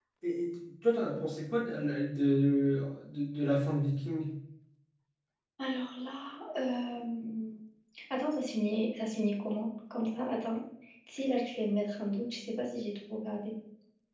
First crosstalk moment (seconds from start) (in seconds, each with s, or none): none